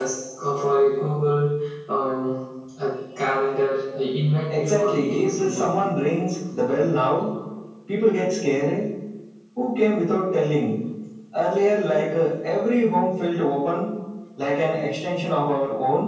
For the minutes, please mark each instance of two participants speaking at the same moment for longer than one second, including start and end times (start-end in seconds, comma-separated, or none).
4.5-5.7